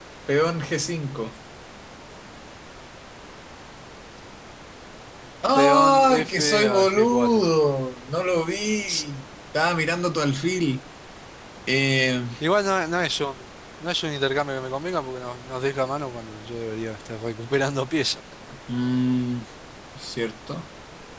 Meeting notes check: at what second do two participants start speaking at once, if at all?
6 s

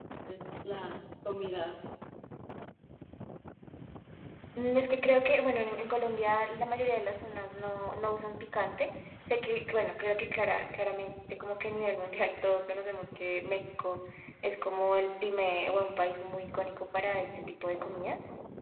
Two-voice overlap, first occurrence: none

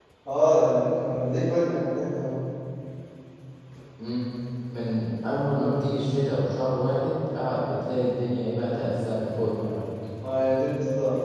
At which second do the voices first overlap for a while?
none

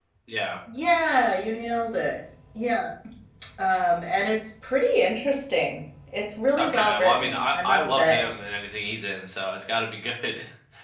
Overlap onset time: 7 s

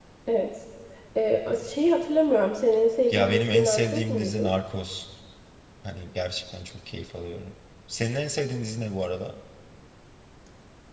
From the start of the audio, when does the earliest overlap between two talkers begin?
3 s

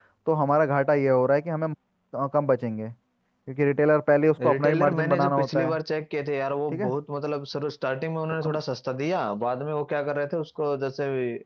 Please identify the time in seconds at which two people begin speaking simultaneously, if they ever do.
4 s

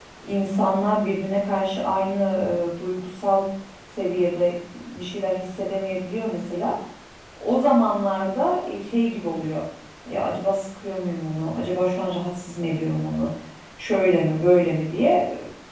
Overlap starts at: none

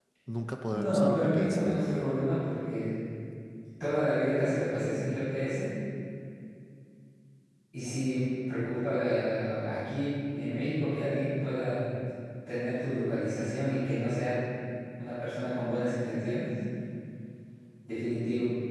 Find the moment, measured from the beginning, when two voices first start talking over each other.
1 s

